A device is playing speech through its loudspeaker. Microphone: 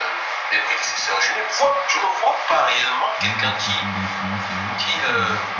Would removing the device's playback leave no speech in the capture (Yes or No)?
No